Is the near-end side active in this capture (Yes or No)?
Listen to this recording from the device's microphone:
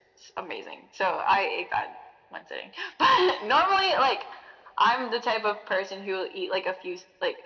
No